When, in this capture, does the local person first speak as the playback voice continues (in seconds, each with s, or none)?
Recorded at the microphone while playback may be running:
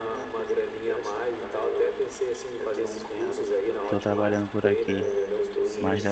3.8 s